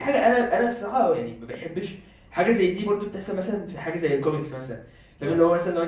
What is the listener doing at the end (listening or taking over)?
listening